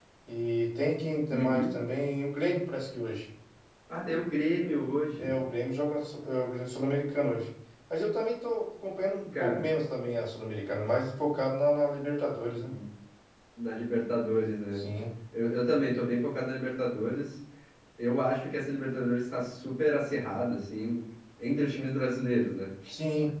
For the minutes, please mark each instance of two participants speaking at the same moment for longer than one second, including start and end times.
none

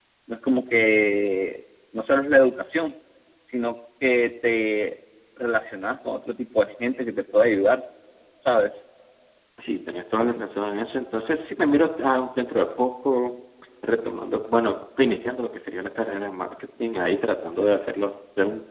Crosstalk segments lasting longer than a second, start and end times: none

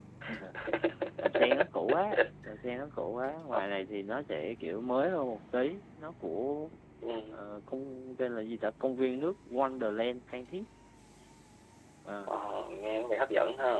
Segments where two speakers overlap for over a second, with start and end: none

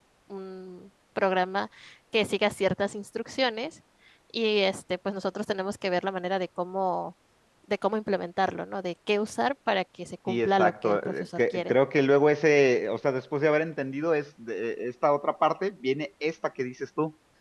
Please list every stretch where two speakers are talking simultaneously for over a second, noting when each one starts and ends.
10.3-11.7

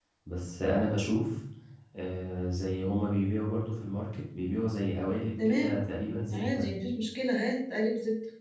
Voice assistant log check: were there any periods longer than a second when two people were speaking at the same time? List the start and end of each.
none

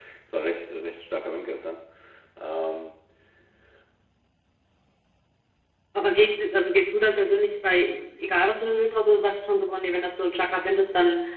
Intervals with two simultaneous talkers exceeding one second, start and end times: none

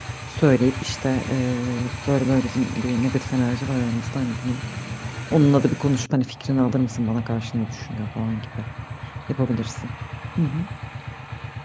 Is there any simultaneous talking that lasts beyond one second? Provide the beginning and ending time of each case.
none

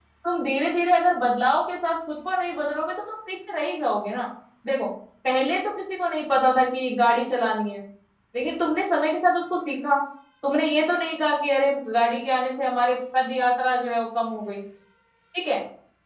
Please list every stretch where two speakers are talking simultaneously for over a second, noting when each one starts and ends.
none

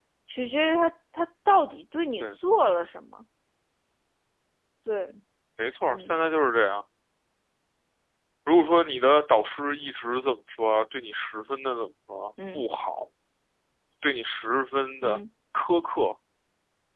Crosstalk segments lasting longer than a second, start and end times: none

